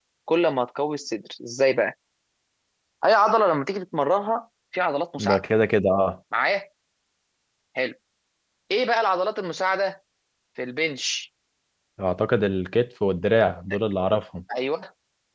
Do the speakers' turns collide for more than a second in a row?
No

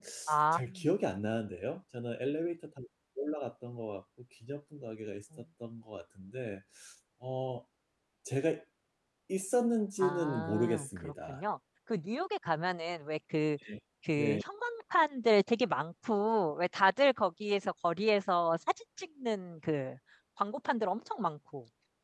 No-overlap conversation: No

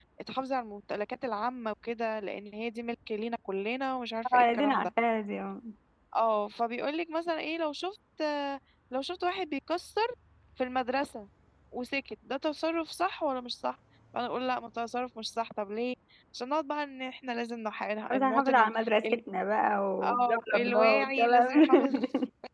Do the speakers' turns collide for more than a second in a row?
Yes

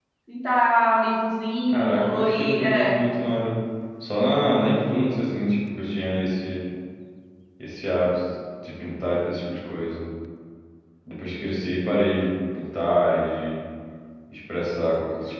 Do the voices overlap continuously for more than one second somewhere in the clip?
Yes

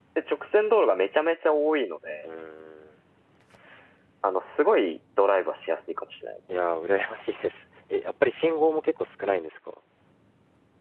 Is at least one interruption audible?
No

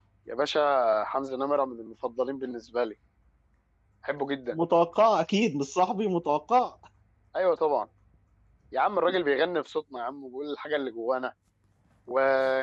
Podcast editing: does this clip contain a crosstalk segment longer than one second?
No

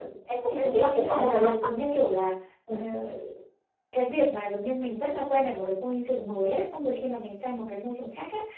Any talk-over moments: Yes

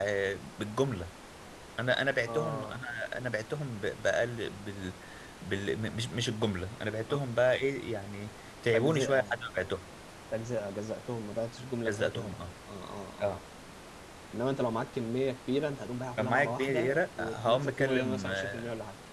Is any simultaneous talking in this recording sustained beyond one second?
Yes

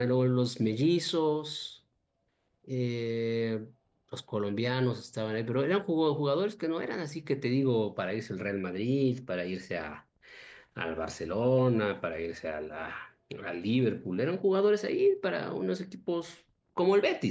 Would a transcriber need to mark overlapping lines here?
No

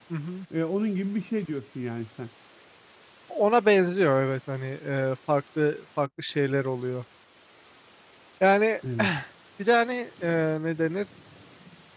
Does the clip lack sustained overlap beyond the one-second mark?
Yes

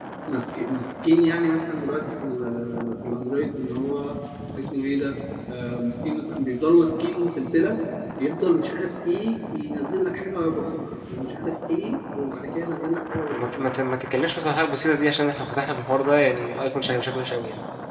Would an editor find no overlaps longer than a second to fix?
Yes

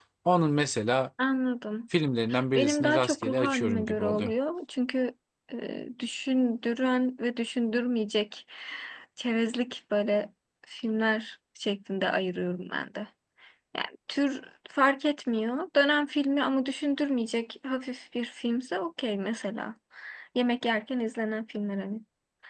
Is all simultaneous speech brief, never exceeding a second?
No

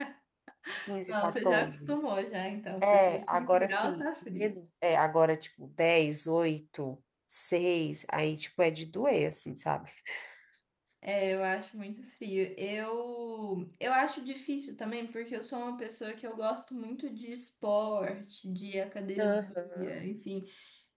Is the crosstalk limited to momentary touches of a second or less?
No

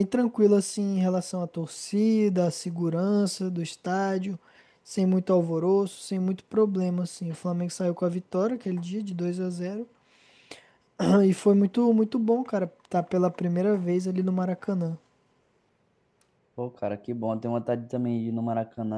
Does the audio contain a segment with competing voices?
No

